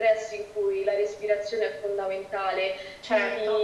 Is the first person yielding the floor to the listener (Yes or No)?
No